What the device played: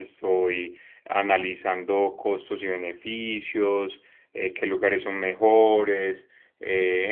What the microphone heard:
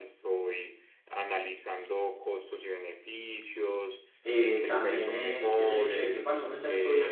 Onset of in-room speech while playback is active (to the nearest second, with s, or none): 4 s